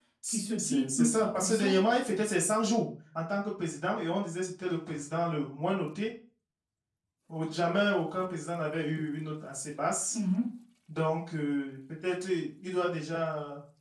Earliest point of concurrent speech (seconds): 0.6 s

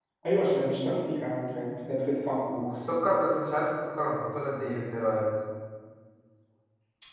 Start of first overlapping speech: none

